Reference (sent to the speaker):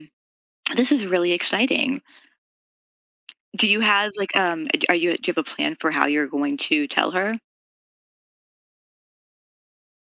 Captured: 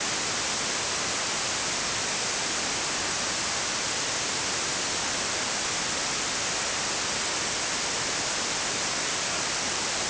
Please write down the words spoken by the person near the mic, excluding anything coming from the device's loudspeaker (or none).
none